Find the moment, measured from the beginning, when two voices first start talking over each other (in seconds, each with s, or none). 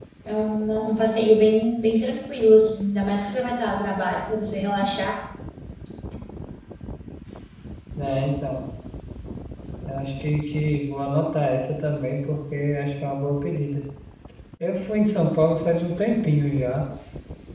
none